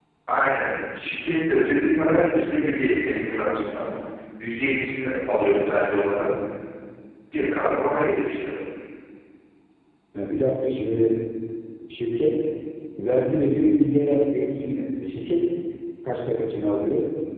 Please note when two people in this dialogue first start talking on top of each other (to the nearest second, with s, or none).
none